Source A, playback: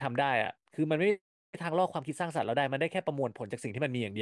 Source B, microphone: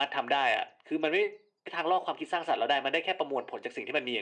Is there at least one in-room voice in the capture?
No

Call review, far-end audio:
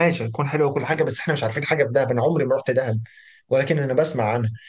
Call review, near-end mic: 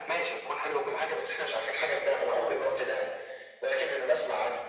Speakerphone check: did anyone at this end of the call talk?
No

